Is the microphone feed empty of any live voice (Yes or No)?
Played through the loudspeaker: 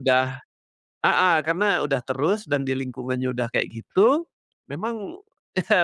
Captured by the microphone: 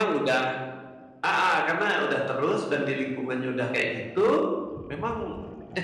Yes